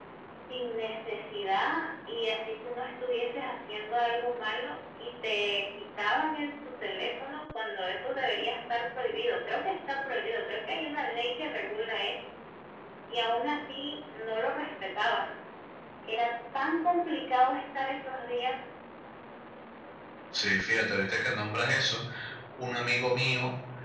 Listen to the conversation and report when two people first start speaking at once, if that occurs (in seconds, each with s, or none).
none